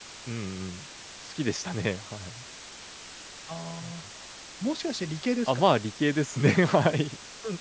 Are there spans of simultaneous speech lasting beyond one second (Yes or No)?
No